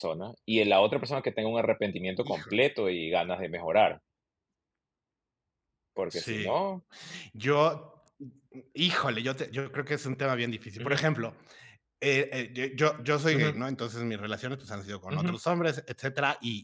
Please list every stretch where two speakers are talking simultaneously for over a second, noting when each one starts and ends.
none

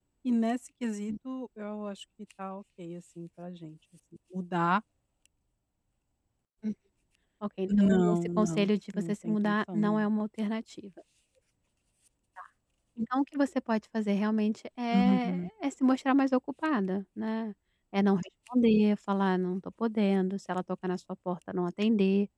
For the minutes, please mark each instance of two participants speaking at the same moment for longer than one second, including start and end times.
7.7-10.0

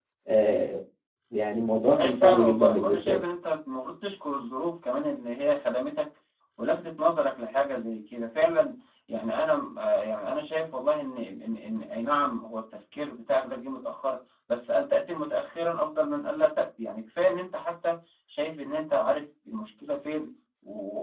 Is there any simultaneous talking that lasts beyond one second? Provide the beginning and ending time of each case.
1.9-3.2

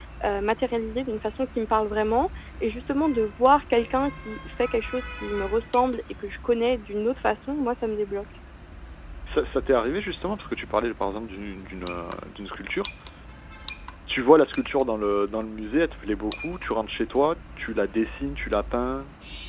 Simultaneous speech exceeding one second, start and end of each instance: none

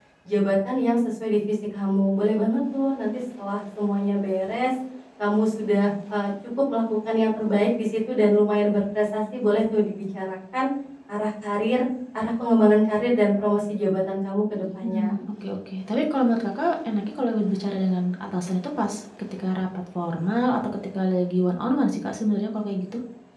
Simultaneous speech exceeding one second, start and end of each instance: none

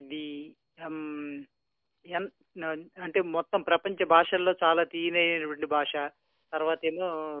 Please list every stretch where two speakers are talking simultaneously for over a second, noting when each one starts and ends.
none

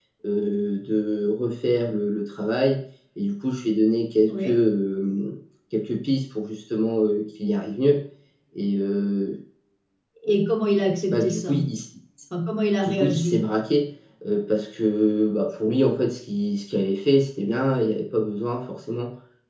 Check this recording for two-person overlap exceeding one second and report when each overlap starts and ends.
none

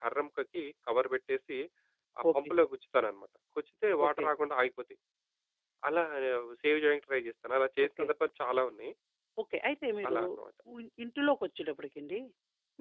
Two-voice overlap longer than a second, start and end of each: none

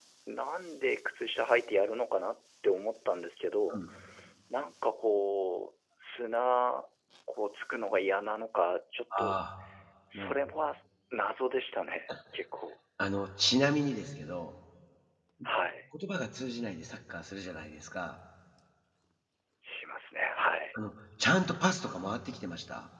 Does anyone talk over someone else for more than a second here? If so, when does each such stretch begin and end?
none

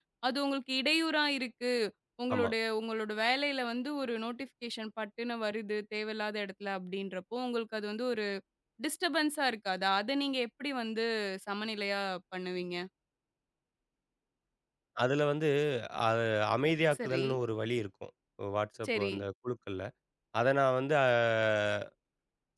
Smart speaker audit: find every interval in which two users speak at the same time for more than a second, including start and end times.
none

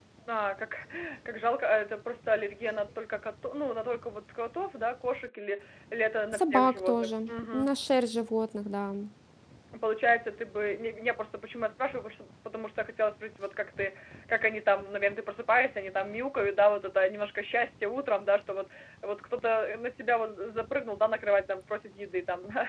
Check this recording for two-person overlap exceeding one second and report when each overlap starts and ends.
6.3-7.7

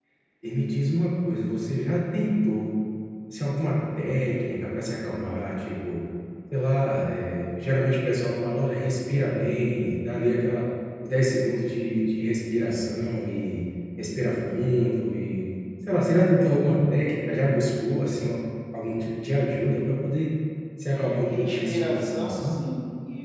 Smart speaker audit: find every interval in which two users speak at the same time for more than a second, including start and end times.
20.9-22.6

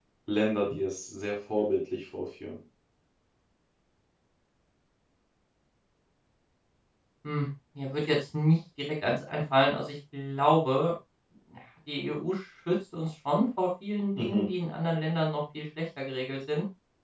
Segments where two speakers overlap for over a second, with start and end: none

